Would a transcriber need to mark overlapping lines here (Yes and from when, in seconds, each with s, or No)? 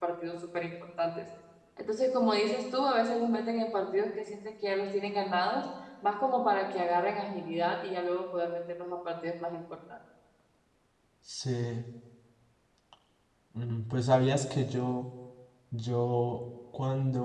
No